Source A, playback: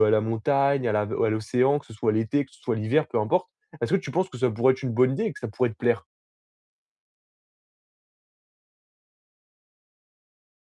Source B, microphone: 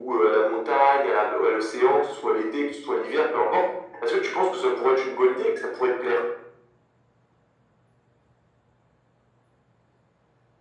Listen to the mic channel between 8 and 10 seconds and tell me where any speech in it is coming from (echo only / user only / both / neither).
neither